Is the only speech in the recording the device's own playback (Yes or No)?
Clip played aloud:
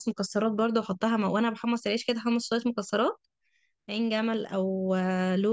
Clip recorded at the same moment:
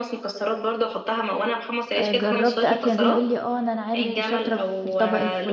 No